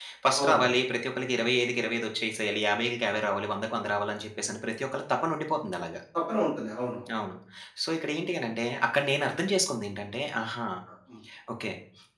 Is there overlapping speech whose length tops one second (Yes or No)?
No